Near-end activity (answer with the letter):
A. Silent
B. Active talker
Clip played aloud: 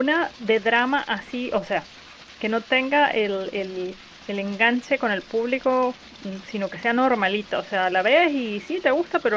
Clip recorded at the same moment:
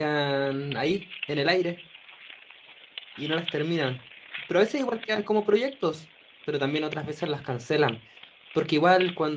B